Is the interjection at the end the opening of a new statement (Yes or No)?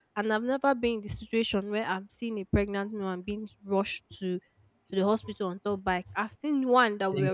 No